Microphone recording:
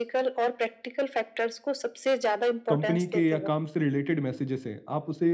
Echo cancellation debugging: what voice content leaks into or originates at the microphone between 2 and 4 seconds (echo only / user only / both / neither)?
both